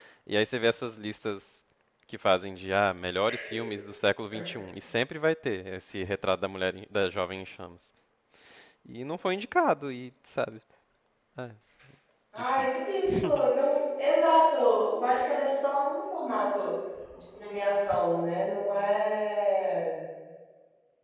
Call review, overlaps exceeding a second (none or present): none